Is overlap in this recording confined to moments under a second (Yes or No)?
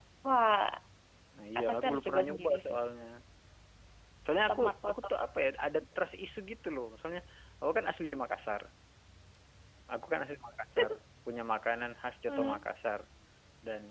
No